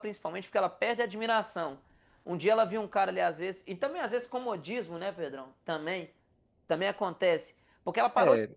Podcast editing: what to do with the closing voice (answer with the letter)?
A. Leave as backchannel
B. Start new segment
A